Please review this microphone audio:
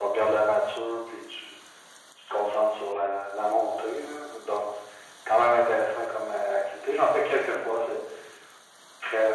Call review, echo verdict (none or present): present